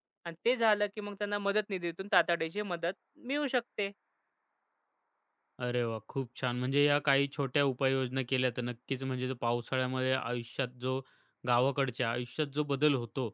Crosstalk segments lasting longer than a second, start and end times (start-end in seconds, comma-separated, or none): none